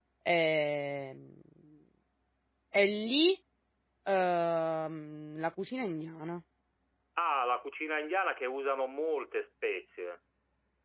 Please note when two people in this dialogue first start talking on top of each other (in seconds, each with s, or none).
none